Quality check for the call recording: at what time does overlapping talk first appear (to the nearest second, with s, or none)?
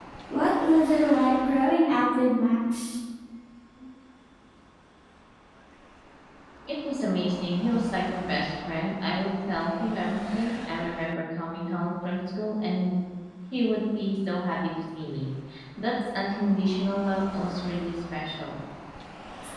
none